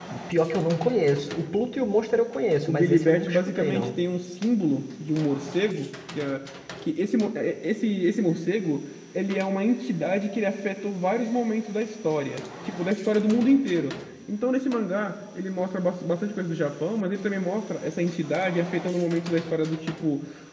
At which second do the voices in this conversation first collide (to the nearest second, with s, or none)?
3 s